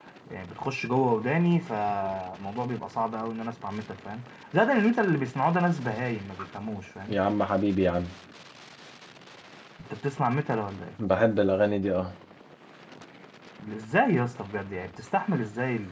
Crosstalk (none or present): none